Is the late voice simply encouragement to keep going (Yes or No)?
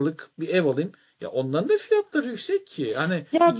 No